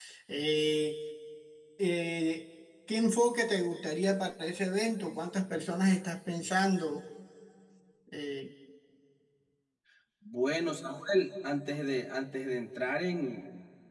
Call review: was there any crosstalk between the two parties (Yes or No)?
No